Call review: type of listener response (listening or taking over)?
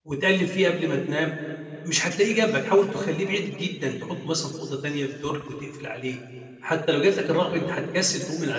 listening